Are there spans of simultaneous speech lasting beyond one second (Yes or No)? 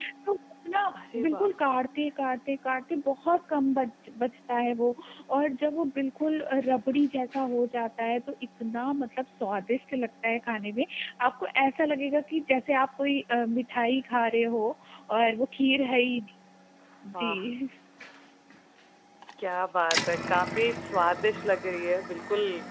No